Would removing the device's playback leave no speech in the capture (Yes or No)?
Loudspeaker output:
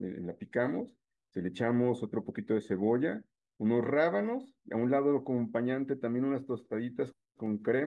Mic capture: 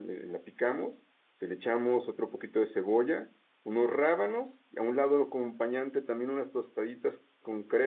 Yes